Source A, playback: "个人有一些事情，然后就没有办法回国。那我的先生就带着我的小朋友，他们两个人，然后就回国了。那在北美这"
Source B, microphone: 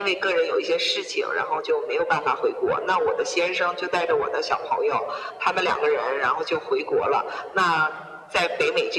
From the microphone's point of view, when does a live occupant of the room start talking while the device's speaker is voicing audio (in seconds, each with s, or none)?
none